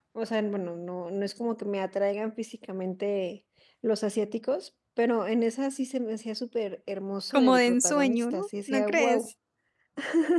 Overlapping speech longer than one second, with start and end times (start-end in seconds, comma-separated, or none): 7.3-9.3